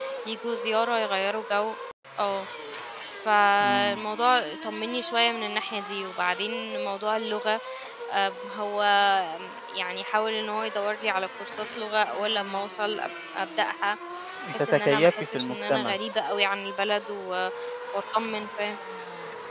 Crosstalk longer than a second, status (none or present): present